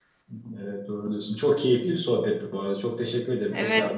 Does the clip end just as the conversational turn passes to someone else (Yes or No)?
Yes